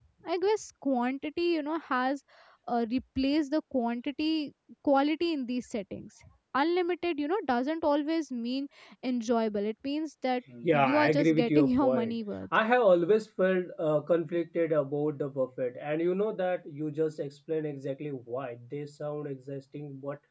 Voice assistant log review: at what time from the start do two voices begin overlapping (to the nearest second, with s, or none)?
10 s